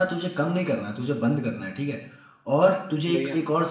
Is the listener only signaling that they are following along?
Yes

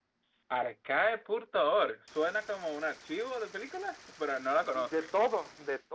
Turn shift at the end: Yes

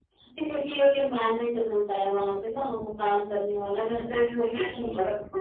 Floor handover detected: Yes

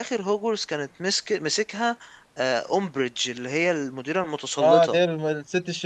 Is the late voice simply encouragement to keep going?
No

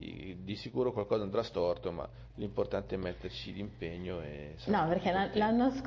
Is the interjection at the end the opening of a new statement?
Yes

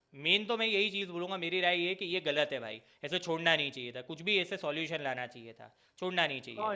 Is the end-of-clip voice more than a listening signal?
Yes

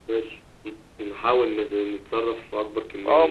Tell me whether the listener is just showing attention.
No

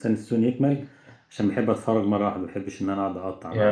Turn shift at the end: Yes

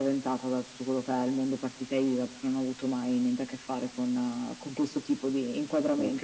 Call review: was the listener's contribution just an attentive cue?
No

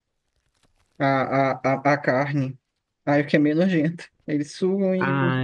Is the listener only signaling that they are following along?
No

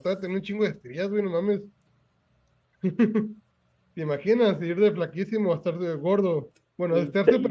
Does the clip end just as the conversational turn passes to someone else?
No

